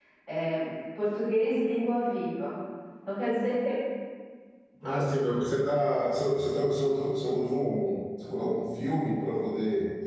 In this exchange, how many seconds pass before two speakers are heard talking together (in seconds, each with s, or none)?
none